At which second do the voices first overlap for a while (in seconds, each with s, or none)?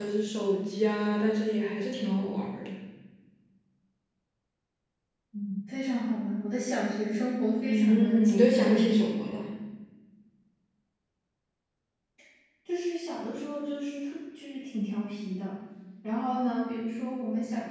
7.7 s